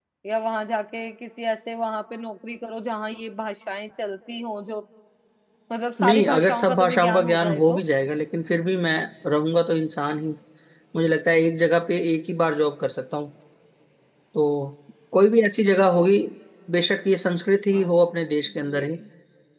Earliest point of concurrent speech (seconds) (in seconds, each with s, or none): 6.0 s